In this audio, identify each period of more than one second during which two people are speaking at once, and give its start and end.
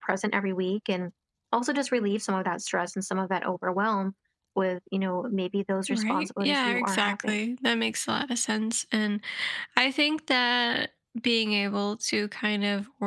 5.9-7.4

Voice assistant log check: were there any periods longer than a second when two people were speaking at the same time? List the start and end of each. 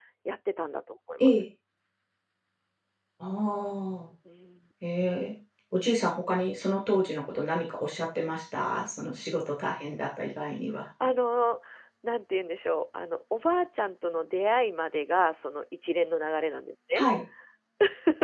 none

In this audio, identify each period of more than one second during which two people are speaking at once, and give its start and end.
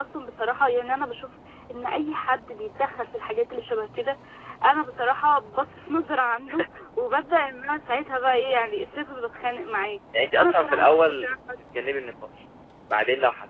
10.4-11.6

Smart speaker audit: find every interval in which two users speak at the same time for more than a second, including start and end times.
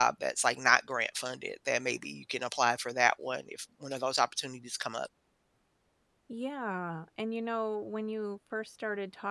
none

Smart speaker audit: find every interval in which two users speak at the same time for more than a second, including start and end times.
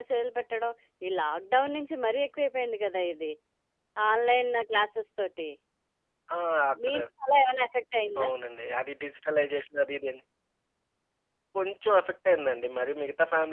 none

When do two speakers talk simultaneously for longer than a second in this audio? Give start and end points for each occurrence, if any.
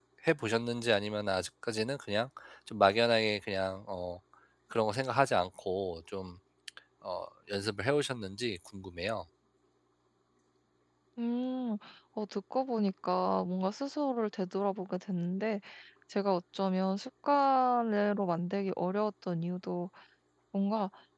none

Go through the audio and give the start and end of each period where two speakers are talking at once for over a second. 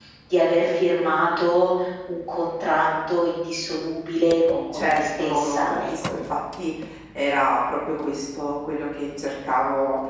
4.7-6.1

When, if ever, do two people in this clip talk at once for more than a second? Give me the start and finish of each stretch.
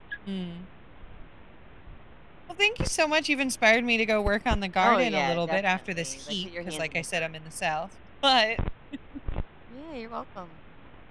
4.8-7.3

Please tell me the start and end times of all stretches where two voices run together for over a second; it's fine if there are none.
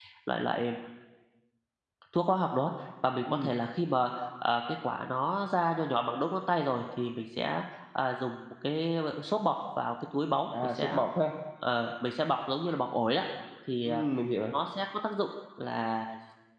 none

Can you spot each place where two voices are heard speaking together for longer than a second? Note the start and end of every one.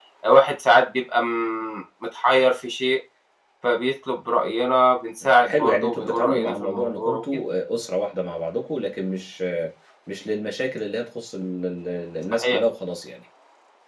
5.2-7.4

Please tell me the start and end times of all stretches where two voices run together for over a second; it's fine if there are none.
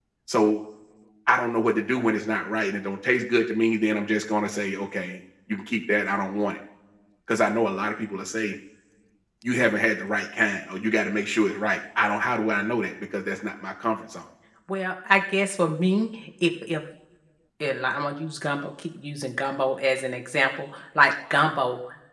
none

